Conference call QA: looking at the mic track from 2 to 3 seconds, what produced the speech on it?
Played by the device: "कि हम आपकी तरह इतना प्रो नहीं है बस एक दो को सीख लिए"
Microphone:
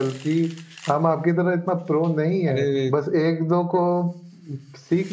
both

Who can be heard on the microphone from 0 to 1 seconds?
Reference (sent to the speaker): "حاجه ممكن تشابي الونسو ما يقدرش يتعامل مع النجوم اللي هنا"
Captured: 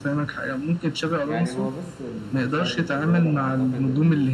echo only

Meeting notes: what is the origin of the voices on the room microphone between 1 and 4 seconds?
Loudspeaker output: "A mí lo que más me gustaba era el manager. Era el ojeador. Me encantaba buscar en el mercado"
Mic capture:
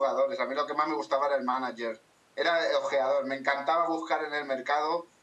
echo only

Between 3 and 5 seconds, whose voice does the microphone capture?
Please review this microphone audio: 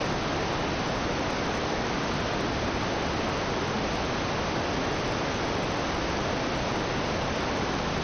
neither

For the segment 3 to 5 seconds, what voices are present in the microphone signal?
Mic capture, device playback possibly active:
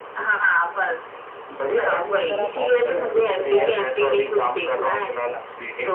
both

